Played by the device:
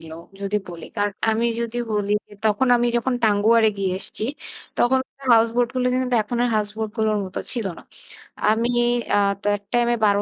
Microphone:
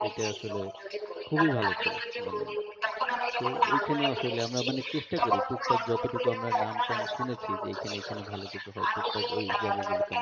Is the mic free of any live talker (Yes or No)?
No